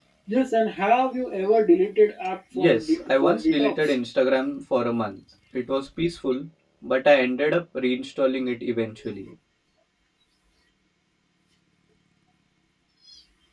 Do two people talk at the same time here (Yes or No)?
Yes